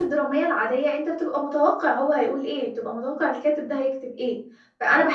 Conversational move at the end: listening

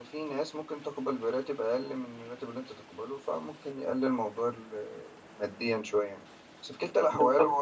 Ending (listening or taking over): listening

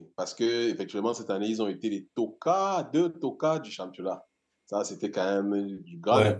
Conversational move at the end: taking over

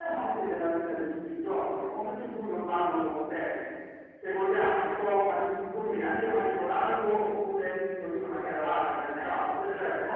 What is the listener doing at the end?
listening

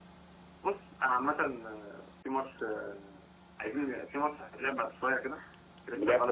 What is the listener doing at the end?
listening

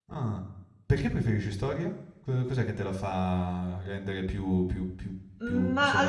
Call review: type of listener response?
taking over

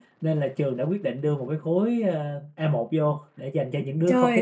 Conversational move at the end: taking over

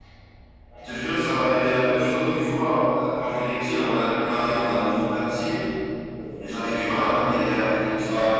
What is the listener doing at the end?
listening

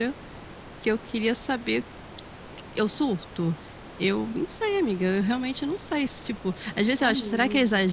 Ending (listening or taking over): listening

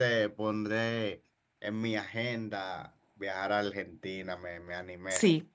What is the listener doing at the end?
taking over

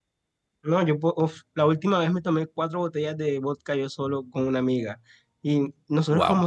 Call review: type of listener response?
listening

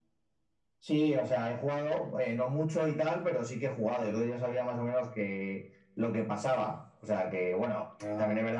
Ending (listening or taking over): listening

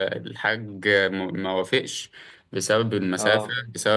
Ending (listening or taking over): listening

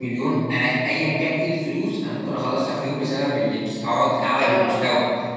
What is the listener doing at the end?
listening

